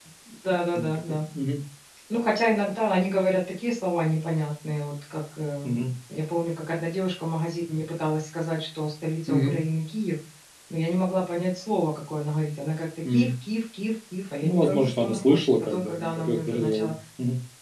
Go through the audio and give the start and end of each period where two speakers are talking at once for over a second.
14.4-16.9

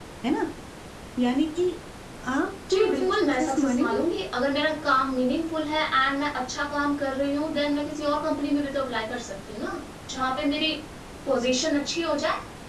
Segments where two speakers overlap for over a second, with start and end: 2.7-4.0

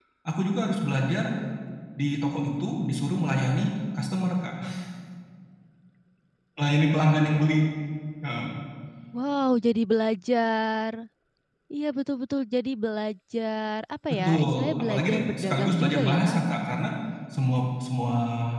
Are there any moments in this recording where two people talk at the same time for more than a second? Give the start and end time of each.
14.2-16.4

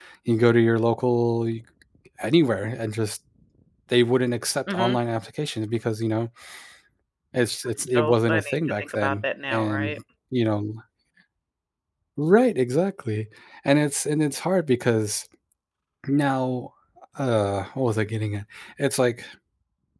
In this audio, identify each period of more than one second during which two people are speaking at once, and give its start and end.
7.9-9.9

